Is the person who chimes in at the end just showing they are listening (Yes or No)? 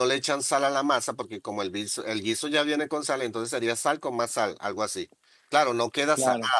Yes